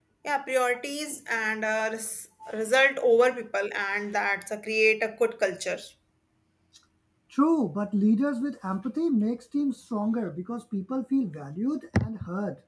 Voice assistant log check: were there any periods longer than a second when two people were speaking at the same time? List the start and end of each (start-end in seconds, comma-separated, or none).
none